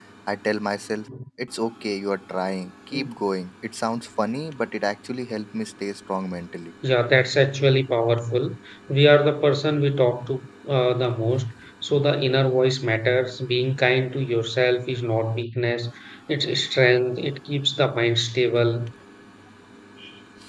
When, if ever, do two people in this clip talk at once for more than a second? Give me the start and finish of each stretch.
none

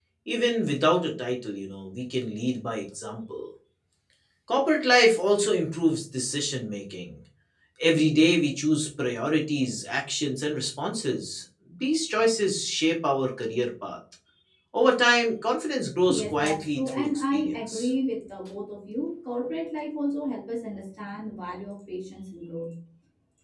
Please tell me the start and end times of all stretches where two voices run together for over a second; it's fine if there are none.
16.1-17.9

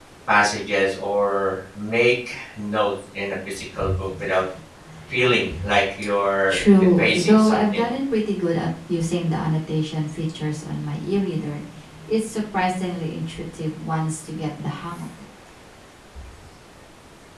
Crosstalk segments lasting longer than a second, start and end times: 6.5-7.9

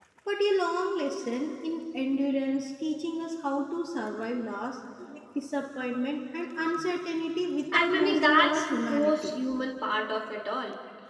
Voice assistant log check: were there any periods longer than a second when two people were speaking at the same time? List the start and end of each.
7.7-9.3

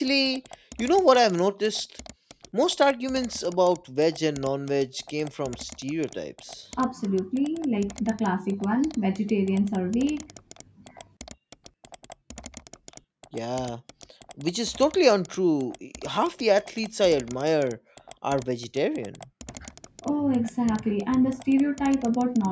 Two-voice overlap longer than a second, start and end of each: none

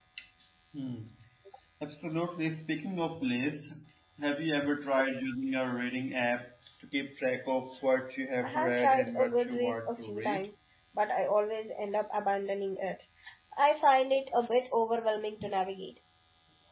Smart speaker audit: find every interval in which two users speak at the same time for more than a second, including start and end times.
8.4-10.5

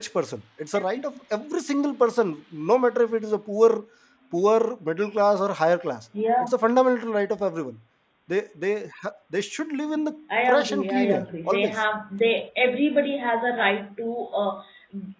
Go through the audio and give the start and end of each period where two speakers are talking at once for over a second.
10.5-11.7

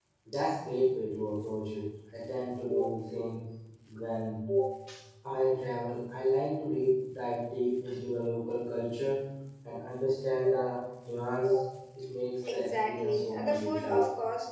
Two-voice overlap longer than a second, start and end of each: 12.5-13.9

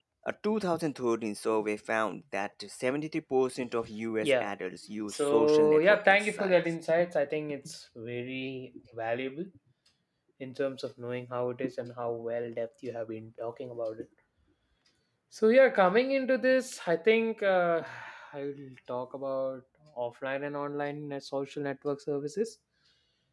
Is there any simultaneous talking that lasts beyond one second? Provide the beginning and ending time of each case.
5.1-6.6

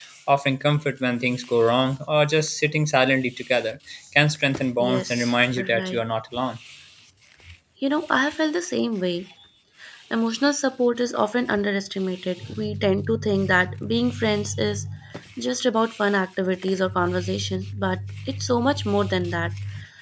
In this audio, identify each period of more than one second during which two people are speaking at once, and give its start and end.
4.8-6.0

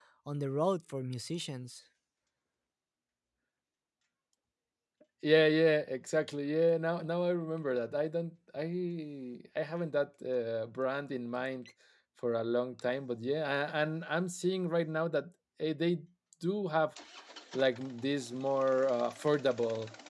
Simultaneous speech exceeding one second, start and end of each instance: none

